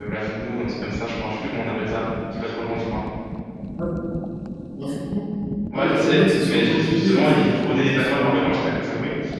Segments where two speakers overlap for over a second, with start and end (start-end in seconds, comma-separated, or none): 5.7-8.7